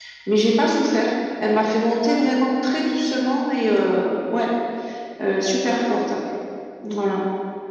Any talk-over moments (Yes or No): No